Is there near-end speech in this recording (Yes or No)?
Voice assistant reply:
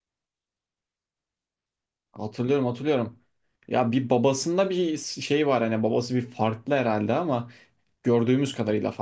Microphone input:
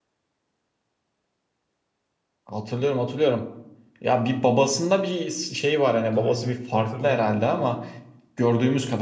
Yes